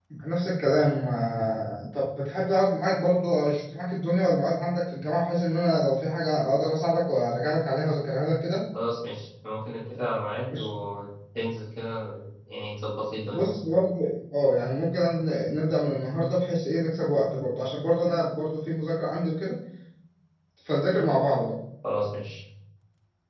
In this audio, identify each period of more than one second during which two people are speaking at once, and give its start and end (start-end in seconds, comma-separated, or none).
none